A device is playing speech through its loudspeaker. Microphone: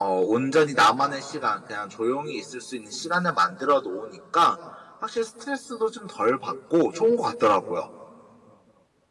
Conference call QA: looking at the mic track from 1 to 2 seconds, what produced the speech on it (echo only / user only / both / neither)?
user only